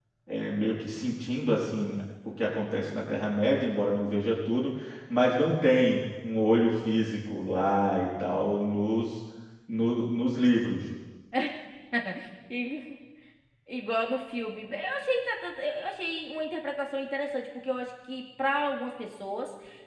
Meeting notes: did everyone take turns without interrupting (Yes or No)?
Yes